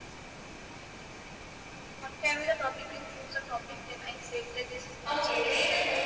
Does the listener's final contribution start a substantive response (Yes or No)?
Yes